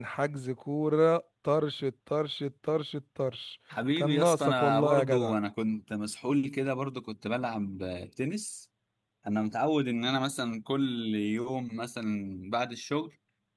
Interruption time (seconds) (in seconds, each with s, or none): 4.0 s